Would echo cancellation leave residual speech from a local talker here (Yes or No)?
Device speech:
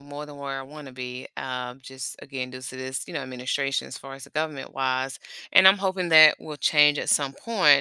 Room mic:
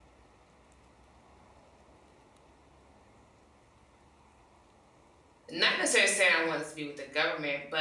Yes